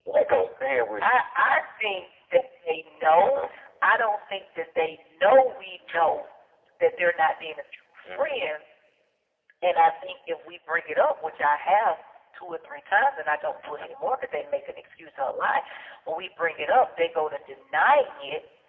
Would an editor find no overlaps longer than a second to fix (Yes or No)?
Yes